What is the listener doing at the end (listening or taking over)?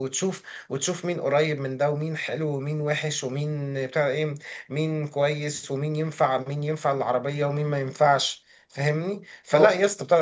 listening